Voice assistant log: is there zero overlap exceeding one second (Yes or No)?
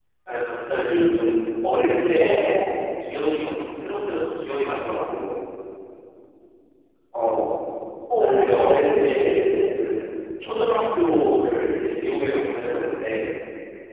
No